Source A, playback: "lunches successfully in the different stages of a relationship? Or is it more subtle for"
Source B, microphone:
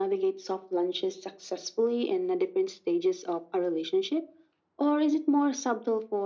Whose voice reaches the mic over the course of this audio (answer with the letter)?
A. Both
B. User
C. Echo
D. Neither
C